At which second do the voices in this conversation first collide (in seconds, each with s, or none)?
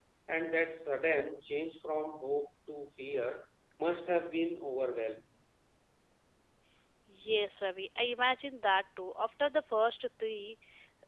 none